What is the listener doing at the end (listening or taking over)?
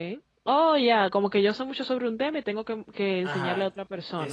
taking over